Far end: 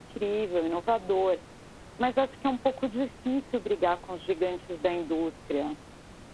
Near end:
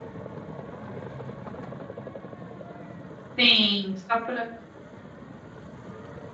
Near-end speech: present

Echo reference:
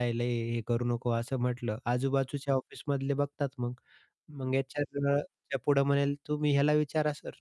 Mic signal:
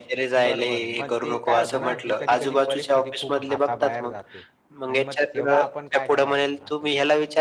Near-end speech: present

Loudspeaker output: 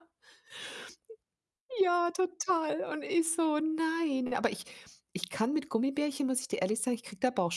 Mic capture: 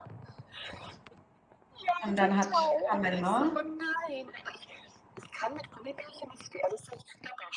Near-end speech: present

